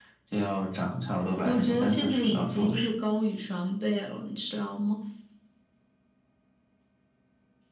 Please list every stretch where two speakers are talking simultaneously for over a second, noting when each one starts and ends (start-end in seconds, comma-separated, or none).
1.4-2.9